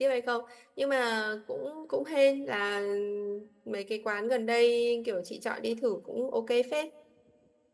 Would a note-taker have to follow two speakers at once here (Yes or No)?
No